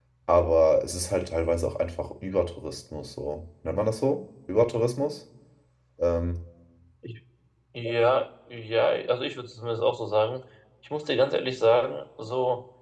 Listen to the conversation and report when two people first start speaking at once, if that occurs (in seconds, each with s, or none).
none